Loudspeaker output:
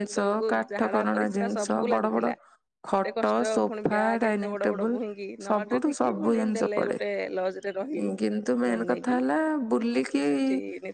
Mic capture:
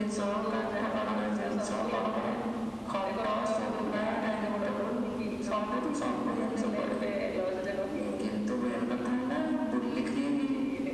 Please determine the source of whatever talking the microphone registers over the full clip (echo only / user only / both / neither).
echo only